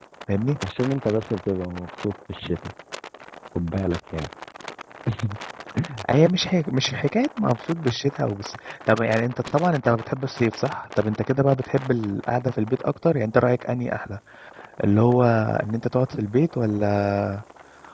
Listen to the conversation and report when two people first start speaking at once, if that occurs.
none

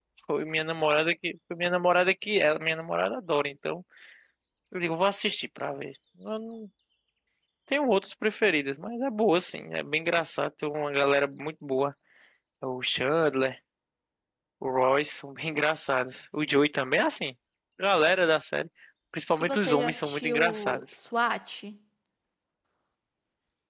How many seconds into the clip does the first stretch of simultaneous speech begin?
19.4 s

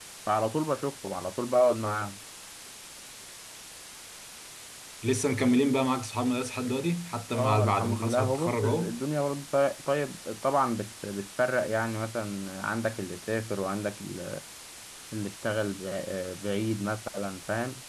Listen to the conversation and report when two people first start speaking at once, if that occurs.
7.3 s

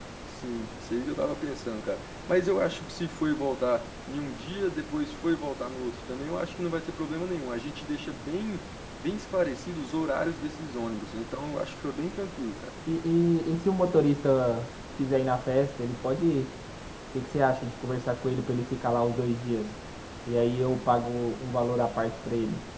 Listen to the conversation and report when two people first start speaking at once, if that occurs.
none

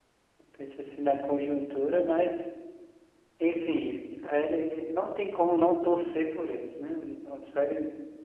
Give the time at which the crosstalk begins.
none

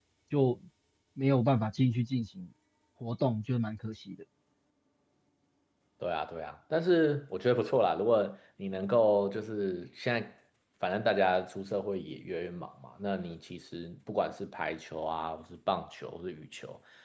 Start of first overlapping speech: none

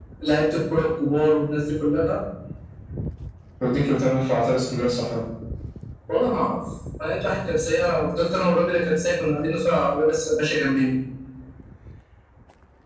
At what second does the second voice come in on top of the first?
none

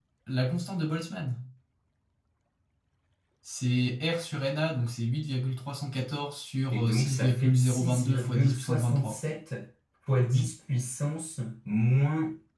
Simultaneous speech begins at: 6.7 s

